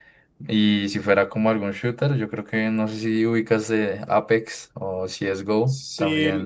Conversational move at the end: taking over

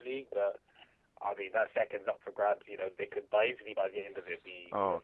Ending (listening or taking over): taking over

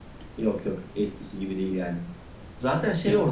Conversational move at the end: listening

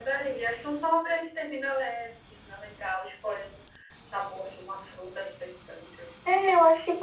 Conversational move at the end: taking over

